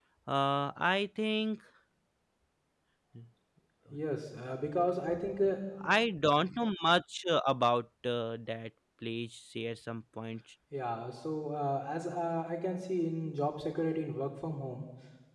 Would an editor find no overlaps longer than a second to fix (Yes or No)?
Yes